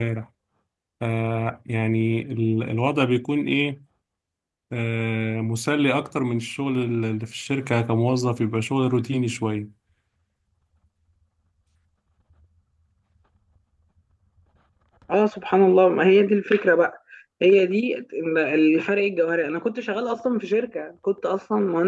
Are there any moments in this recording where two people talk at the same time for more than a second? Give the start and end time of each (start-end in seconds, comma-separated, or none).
none